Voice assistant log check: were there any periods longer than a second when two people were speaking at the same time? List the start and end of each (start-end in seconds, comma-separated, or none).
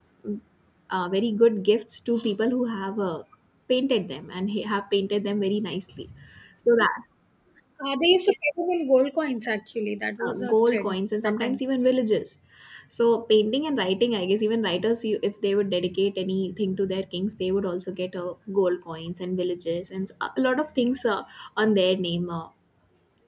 10.2-11.6